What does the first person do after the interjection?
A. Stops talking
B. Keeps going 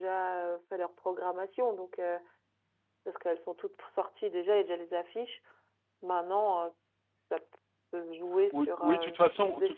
A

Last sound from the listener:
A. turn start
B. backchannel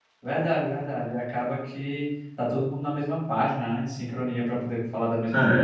A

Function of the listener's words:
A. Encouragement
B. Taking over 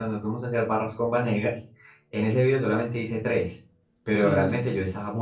A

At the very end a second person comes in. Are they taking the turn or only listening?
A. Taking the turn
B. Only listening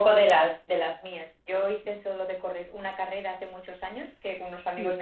B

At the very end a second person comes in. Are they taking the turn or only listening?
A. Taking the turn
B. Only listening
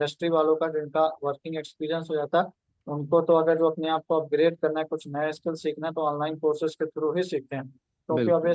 B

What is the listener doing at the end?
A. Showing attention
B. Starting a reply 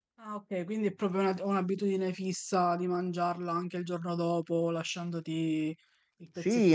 B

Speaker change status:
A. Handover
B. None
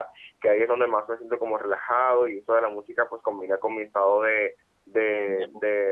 B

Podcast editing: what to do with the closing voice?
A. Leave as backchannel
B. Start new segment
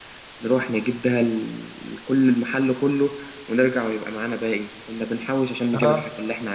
A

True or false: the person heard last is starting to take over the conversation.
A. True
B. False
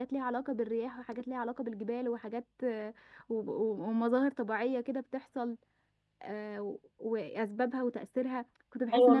A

